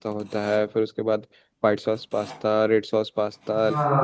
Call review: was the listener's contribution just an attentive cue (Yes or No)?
No